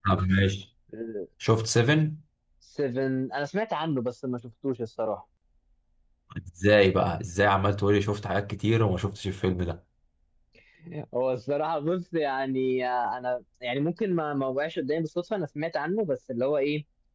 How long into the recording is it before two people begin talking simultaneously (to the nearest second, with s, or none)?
none